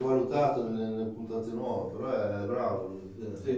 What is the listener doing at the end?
taking over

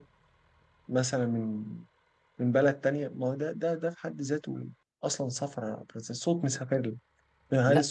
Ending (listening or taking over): listening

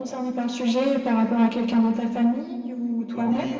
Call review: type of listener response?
taking over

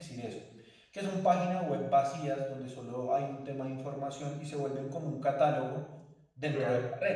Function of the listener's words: listening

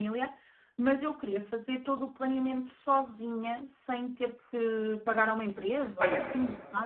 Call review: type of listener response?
taking over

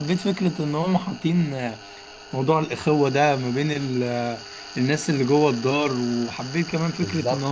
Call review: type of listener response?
listening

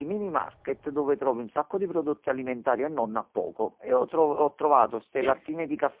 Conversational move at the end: listening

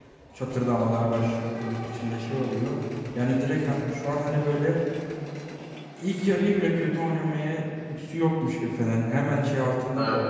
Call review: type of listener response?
listening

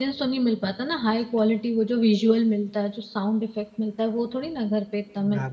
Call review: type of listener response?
taking over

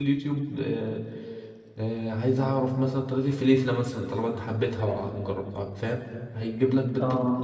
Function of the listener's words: listening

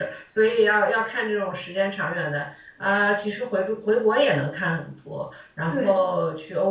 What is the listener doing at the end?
listening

